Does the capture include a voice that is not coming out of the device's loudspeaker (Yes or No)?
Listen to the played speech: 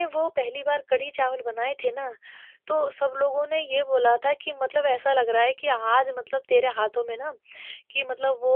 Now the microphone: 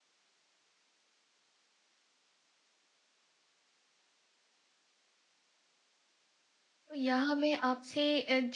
Yes